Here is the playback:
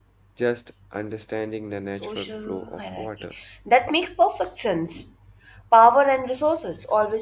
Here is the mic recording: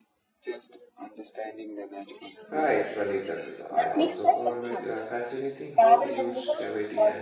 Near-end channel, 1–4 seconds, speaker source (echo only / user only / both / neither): both